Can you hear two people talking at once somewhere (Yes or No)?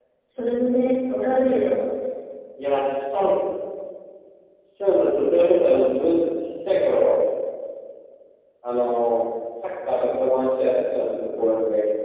No